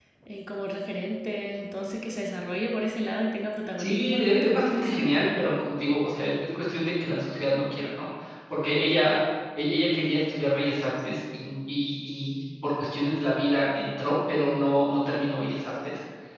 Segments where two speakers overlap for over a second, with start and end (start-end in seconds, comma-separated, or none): 3.8-5.3